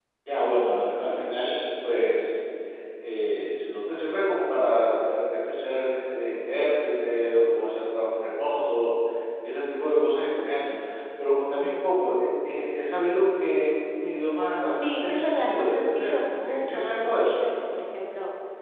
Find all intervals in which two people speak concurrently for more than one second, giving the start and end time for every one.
14.7-17.5

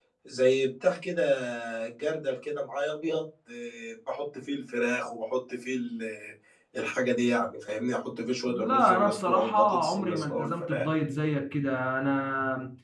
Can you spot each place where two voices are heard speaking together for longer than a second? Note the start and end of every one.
8.5-10.9

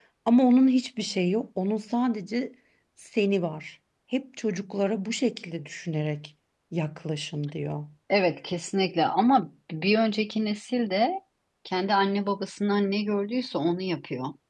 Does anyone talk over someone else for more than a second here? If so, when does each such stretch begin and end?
none

